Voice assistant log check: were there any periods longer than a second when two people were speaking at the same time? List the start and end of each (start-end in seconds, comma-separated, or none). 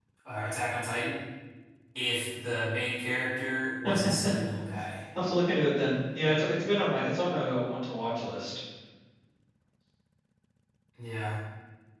none